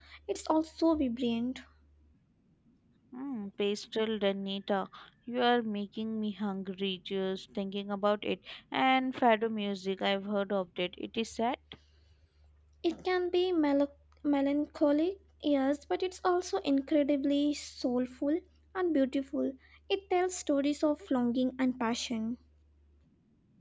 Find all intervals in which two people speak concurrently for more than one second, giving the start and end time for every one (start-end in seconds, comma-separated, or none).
none